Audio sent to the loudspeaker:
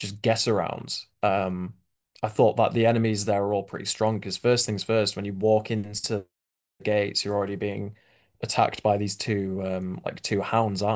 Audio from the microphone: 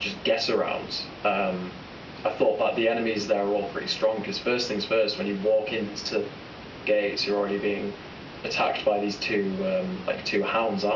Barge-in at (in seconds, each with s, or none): none